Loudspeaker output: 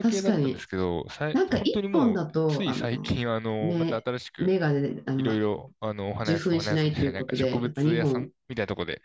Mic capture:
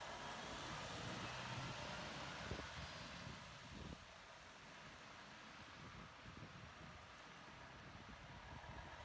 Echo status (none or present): none